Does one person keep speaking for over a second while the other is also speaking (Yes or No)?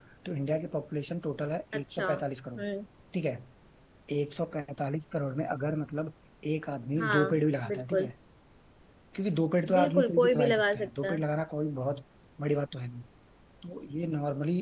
Yes